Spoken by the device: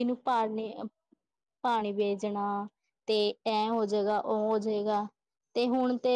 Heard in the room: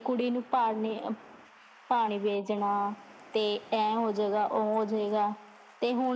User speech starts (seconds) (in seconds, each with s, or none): none